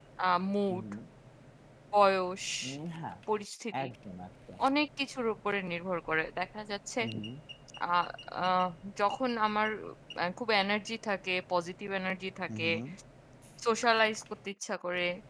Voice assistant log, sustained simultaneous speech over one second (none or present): none